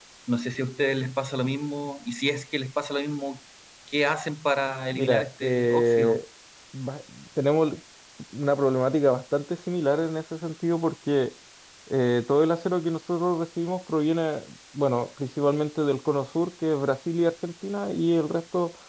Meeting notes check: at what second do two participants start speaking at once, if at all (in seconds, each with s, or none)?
4.9 s